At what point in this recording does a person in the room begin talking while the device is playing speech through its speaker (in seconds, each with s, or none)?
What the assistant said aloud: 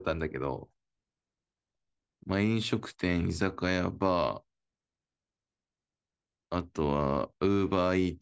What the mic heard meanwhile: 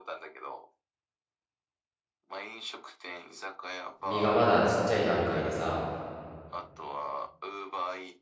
4.0 s